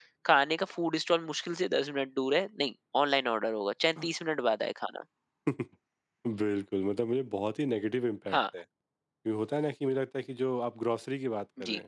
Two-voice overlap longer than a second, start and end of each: none

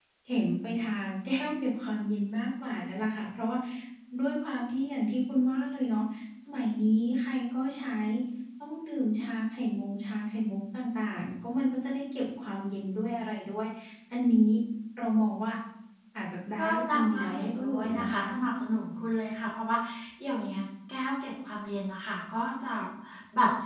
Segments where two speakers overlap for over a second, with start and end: 16.6-18.2

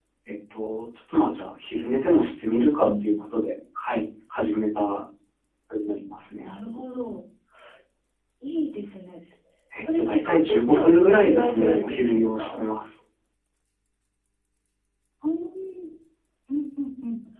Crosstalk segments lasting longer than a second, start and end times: 9.9-12.6

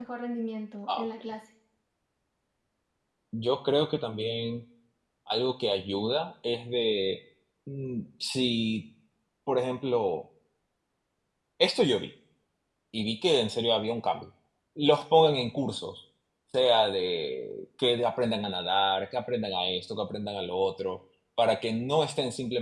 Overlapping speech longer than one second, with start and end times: none

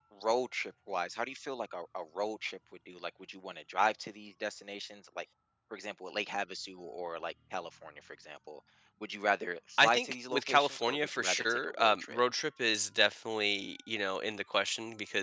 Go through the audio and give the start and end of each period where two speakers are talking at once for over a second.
9.8-12.2

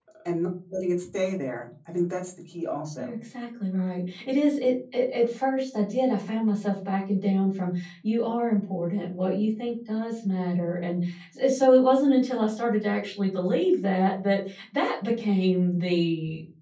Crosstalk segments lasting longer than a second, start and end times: none

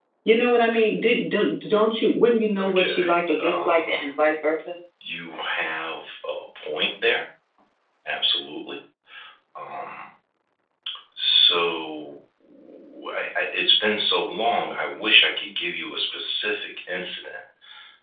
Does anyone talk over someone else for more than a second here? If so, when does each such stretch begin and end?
2.6-4.0

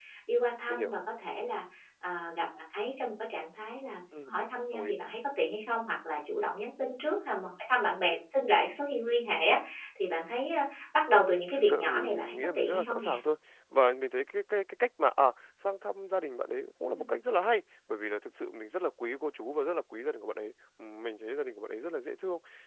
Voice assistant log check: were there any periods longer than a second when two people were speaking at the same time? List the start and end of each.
11.6-13.1

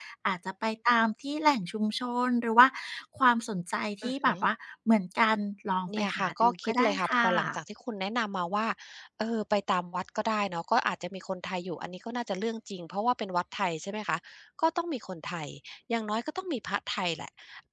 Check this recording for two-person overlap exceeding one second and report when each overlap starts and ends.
6.0-7.6

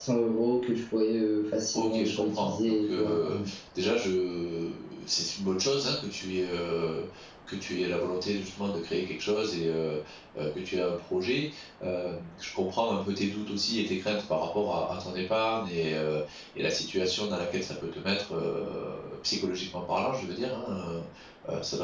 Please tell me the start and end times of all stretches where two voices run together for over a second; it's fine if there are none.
1.7-3.4

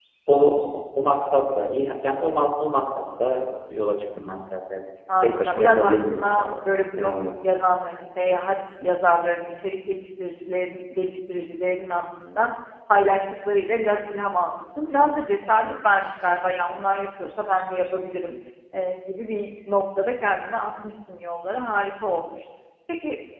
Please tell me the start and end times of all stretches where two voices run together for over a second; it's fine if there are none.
5.2-6.5

